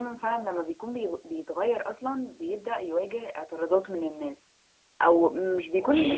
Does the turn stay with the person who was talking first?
Yes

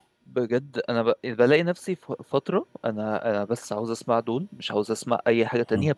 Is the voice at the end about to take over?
No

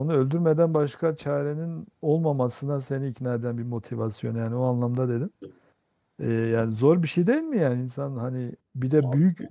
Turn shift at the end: No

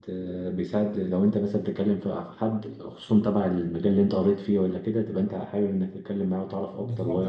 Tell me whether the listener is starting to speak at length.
Yes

